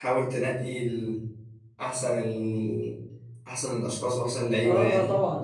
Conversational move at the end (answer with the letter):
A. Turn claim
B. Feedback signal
A